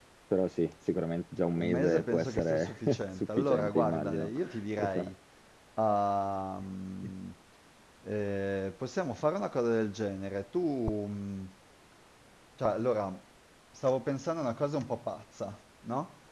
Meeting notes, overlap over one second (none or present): present